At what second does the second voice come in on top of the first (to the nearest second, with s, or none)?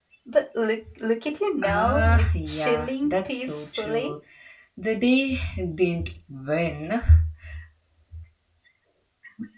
2 s